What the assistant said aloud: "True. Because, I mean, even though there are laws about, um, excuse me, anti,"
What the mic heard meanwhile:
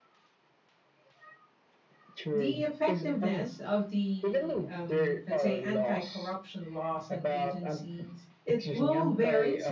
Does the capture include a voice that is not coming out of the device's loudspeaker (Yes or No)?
Yes